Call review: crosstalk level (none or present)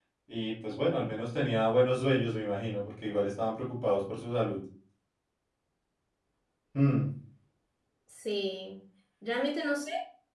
none